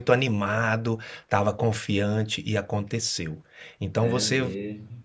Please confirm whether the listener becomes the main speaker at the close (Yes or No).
No